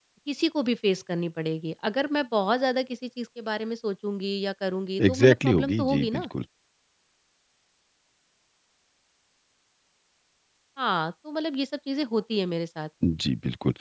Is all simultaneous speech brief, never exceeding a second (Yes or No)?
No